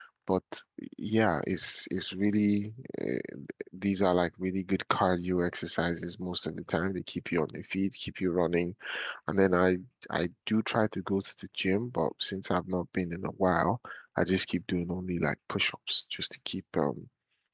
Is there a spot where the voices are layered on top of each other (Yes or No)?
No